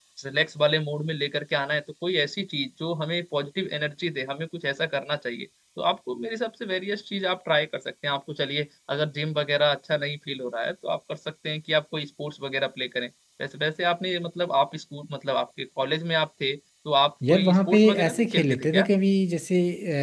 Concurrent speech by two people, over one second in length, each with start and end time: 17.3-18.9

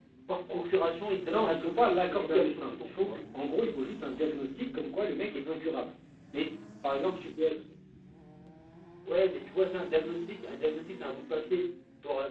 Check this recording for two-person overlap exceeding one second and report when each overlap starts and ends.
1.3-3.2

